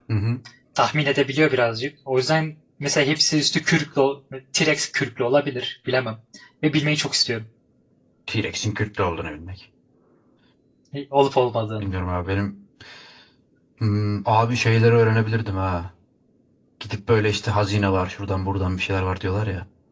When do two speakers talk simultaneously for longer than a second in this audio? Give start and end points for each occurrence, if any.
none

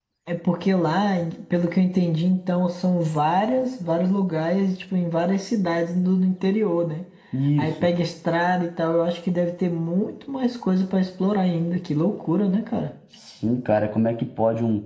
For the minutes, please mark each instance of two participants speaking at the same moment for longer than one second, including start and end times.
none

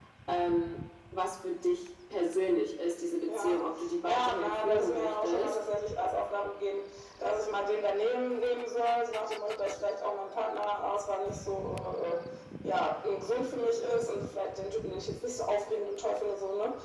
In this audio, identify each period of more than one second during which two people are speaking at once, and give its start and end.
4.0-5.5

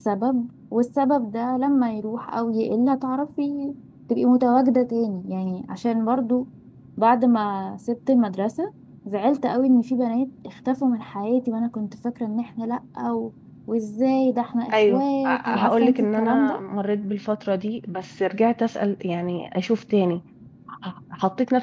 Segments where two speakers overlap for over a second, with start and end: 14.7-16.6

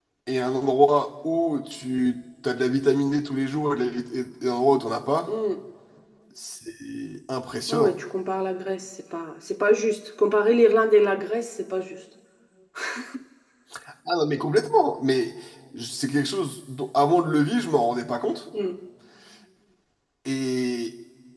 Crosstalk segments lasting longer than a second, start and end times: none

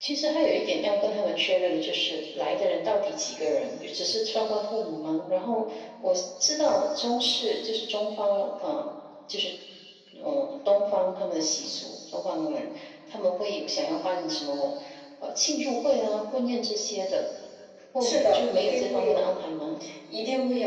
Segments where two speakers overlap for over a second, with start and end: 18.0-19.3

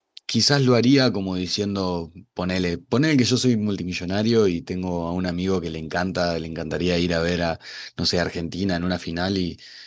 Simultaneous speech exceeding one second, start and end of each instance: none

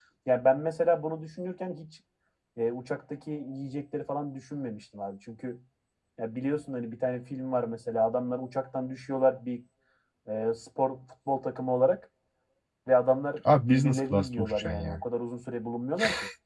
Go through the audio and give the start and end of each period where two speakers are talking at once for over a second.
13.5-15.0

